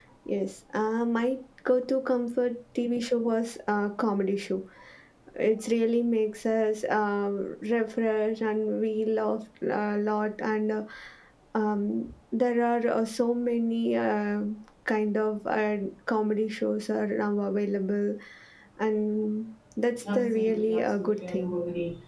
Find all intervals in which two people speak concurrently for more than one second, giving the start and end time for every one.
20.1-21.5

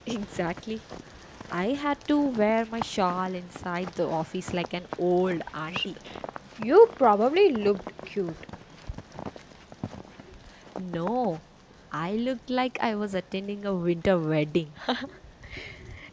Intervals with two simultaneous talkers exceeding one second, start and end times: none

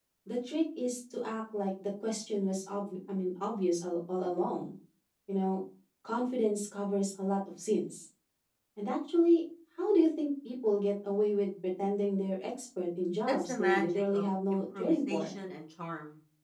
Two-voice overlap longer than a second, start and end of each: 13.3-15.3

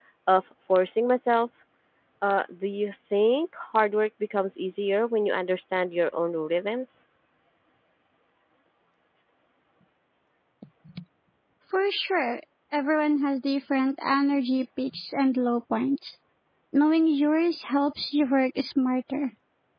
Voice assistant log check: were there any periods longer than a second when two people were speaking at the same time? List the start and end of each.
none

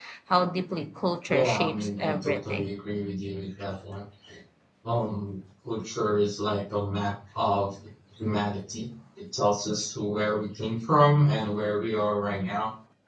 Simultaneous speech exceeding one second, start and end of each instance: 1.3-2.7

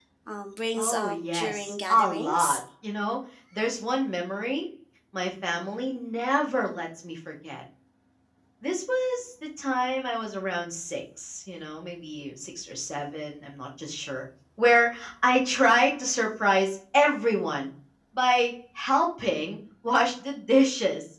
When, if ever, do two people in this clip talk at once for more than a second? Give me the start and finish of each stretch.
0.8-2.6

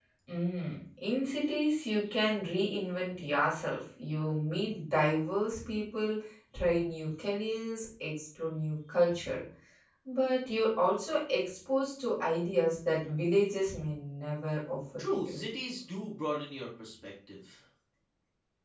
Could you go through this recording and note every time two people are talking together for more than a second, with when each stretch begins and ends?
none

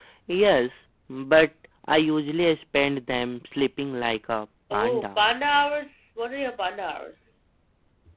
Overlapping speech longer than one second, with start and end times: none

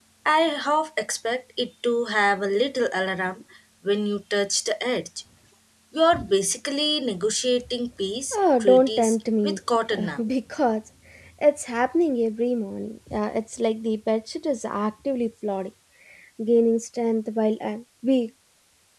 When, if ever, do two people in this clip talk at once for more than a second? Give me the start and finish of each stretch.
8.3-9.6

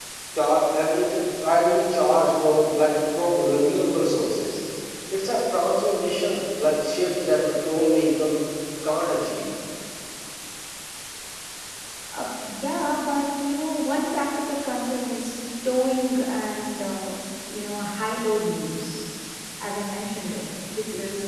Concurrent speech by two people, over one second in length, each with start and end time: none

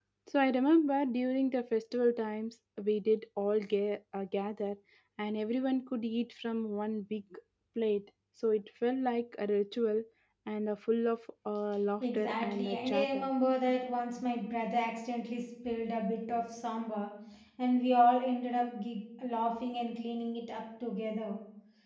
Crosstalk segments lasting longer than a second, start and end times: 12.0-13.3

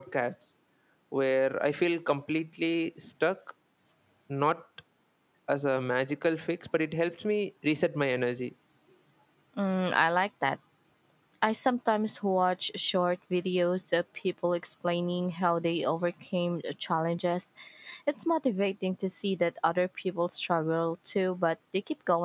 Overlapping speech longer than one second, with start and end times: none

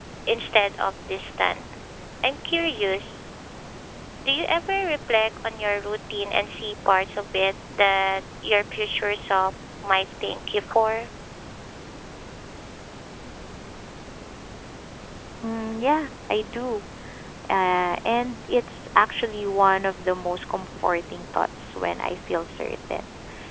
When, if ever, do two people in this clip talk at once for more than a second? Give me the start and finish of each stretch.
none

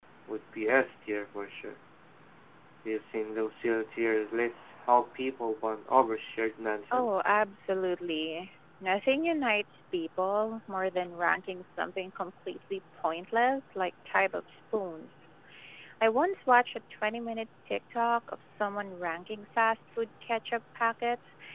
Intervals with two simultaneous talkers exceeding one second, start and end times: none

